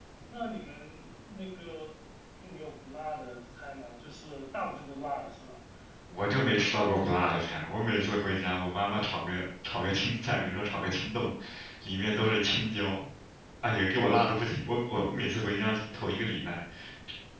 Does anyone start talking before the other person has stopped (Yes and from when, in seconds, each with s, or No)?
No